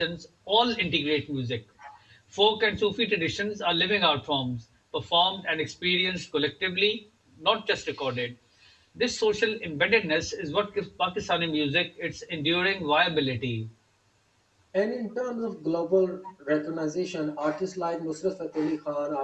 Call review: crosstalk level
none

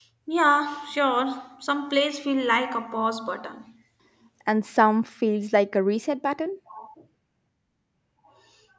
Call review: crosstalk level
none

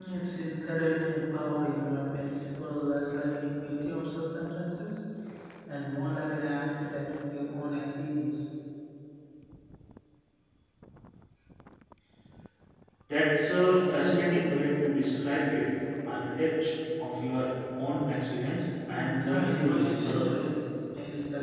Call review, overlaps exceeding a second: present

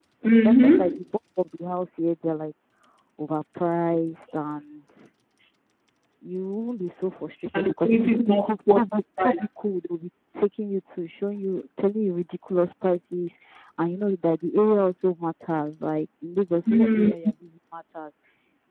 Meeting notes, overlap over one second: present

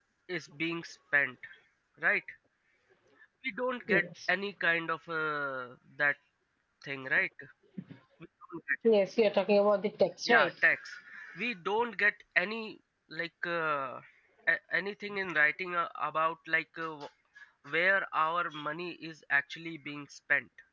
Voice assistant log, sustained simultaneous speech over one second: none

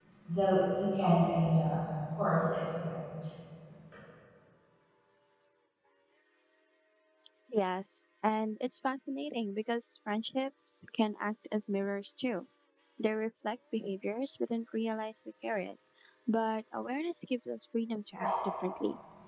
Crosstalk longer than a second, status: none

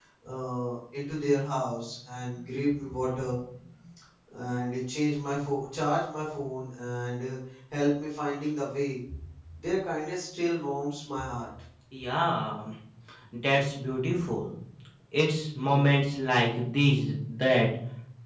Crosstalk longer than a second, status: none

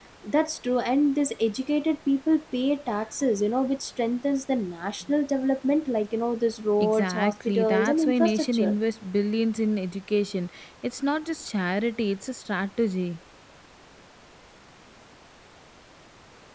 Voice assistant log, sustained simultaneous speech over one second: present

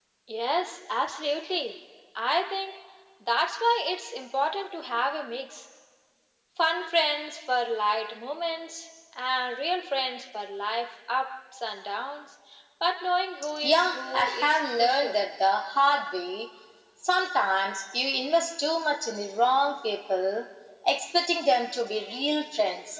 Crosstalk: present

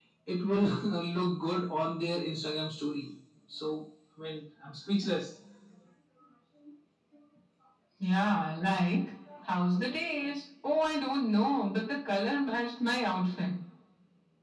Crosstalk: none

